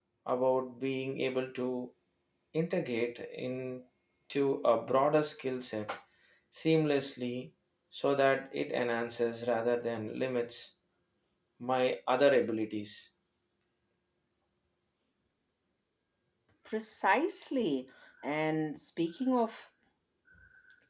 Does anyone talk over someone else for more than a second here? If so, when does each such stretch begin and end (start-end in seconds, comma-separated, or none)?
none